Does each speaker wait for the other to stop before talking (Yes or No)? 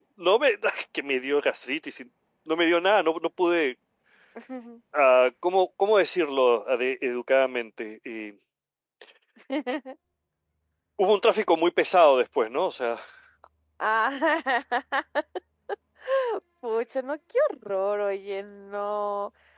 Yes